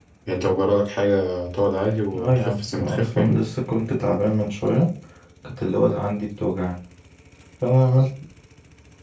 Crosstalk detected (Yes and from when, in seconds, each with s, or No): Yes, from 2.1 s